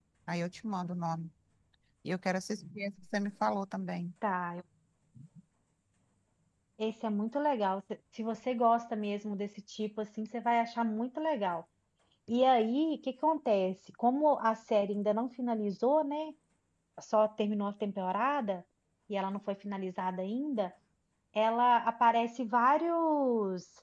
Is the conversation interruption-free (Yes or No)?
Yes